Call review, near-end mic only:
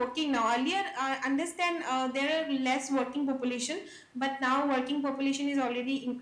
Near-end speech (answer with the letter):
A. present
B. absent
B